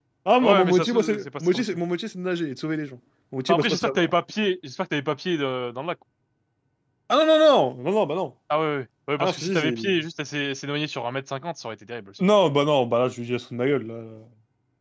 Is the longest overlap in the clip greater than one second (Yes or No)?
Yes